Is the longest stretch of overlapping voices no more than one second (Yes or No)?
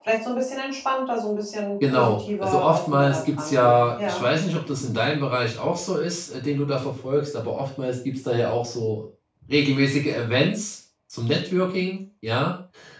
No